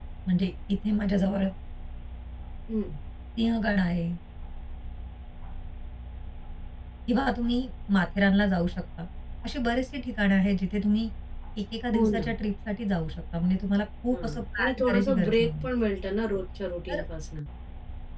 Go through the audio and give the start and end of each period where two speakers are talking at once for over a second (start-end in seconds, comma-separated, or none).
14.1-15.7